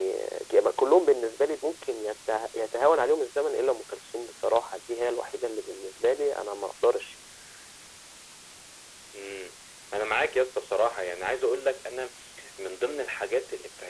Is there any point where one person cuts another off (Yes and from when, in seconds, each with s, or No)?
No